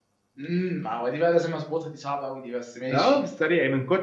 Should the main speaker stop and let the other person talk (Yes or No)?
Yes